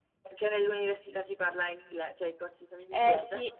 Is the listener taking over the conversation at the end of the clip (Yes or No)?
Yes